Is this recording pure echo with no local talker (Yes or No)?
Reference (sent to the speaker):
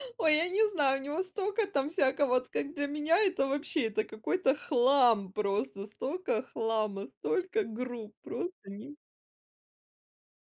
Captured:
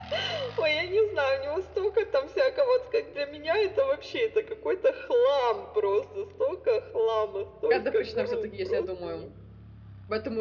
No